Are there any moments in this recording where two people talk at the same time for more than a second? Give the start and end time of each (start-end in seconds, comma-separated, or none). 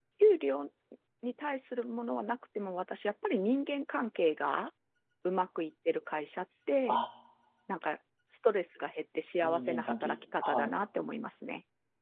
9.4-10.7